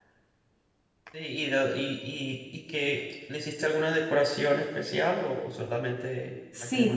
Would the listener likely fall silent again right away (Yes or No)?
No